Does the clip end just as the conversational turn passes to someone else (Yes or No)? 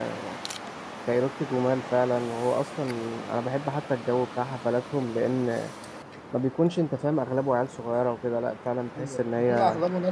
Yes